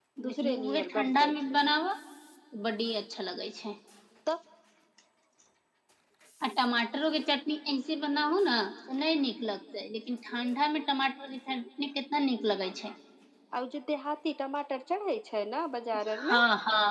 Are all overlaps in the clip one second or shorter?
No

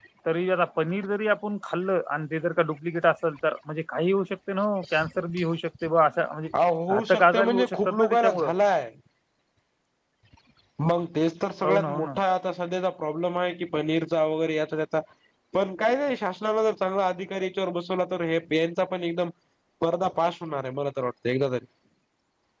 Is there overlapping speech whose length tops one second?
Yes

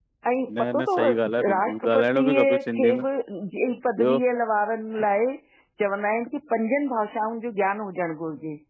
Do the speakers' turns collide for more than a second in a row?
Yes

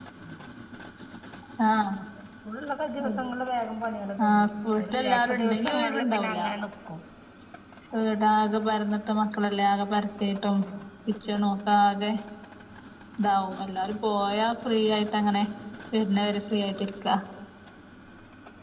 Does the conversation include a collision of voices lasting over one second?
Yes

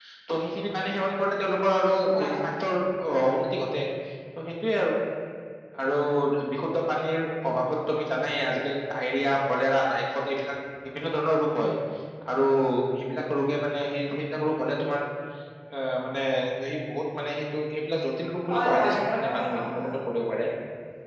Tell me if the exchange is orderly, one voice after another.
No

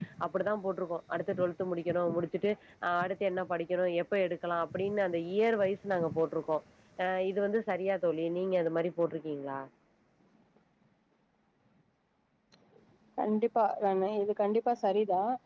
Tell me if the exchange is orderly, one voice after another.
Yes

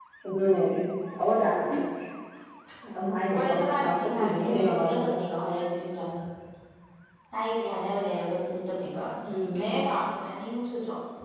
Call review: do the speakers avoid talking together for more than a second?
No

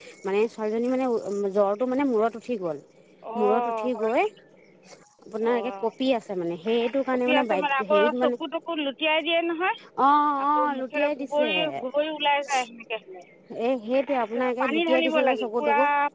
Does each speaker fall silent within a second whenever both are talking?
No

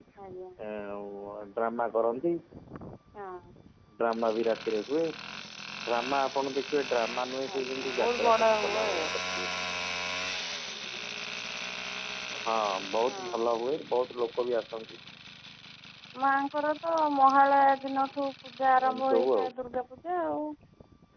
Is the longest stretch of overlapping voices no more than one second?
No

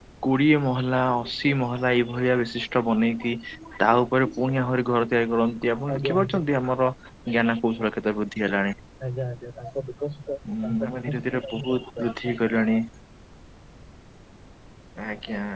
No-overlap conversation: No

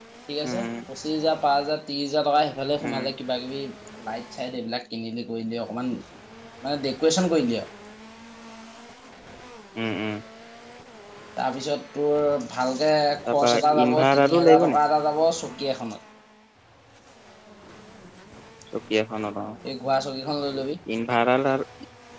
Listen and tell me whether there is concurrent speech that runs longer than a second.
Yes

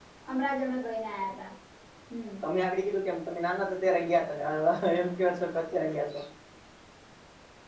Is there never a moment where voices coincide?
Yes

